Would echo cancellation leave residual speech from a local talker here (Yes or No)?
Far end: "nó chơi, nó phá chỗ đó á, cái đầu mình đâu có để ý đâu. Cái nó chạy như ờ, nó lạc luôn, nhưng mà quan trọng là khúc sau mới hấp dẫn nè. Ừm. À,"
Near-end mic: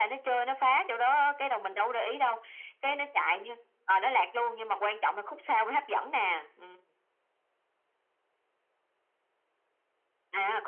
No